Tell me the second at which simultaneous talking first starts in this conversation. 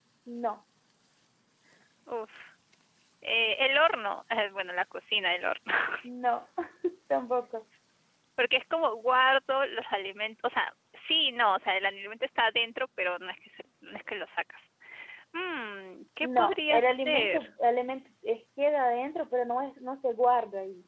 16 s

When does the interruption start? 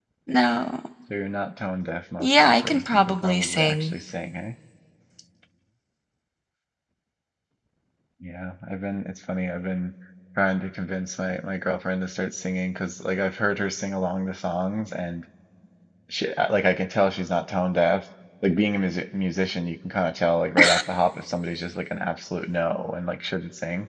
2 s

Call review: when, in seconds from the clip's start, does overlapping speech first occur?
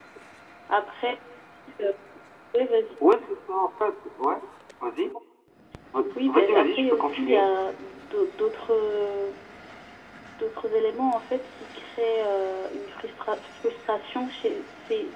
6 s

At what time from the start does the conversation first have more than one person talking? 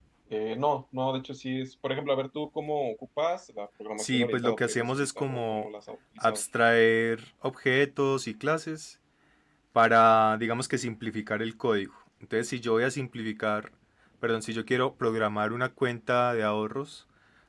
4 s

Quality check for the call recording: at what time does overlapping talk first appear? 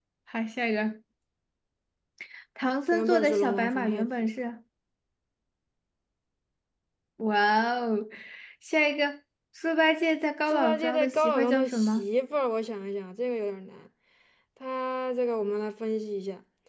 3 s

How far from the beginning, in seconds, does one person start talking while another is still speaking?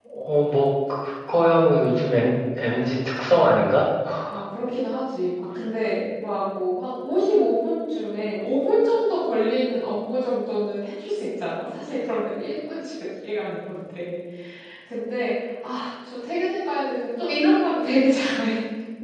none

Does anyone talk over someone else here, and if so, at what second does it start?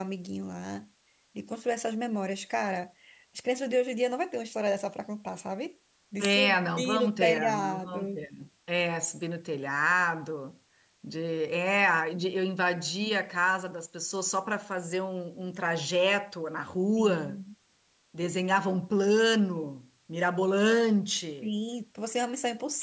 6 s

